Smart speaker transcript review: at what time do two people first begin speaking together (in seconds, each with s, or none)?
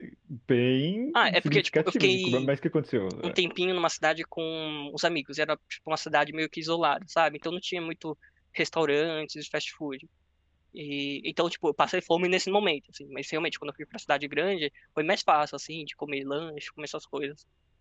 1.1 s